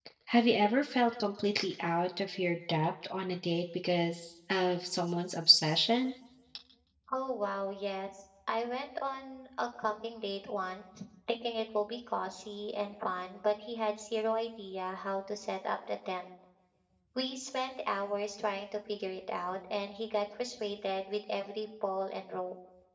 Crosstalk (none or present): none